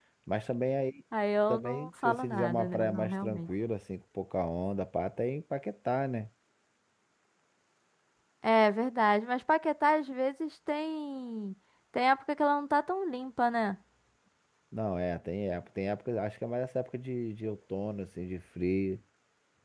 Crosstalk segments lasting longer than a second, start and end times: 1.5-3.4

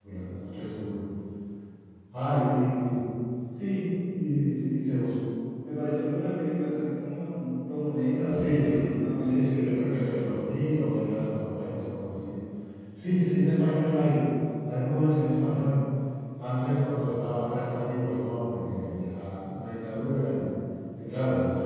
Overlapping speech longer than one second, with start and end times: 8.2-9.6

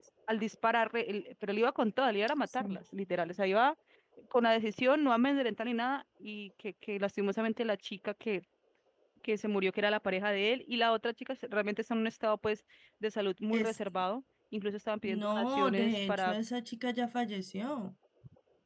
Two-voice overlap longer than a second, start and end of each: 15.0-16.4

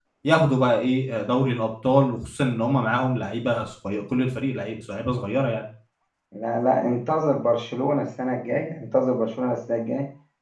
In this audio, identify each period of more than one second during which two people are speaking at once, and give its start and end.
none

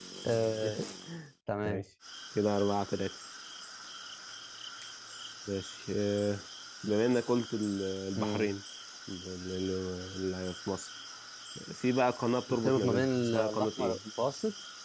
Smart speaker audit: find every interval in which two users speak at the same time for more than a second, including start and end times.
12.5-14.0

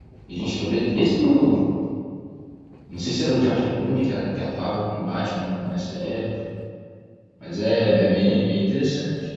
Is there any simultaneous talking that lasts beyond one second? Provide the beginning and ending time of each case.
none

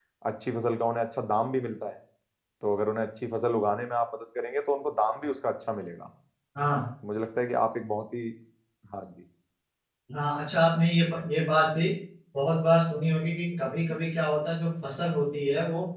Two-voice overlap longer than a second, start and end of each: none

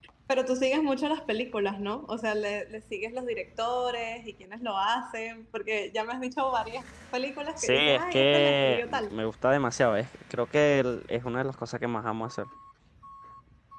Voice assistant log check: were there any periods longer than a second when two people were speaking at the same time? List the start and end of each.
7.6-9.1

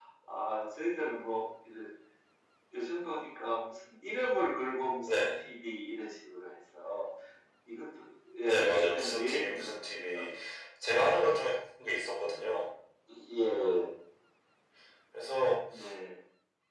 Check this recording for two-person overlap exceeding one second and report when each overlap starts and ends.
8.4-10.2

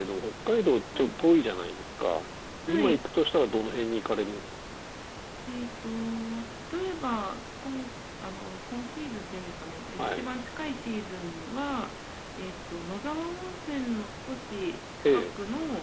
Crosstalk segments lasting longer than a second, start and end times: none

